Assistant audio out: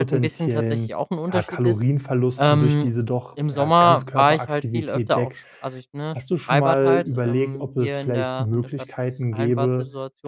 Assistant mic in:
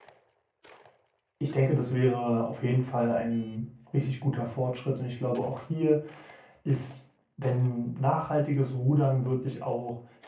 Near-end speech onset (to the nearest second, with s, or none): 1 s